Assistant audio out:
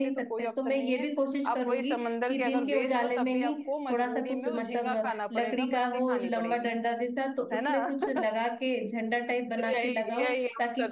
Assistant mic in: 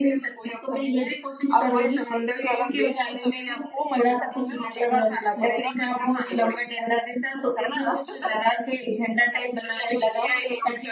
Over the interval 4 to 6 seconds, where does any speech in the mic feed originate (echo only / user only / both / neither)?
echo only